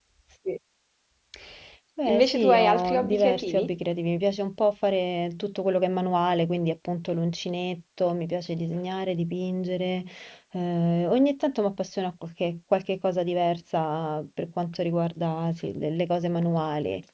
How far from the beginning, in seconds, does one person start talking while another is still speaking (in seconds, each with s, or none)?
2.1 s